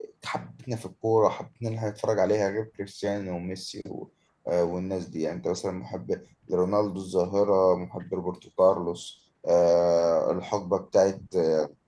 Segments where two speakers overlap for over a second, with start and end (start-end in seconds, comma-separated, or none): none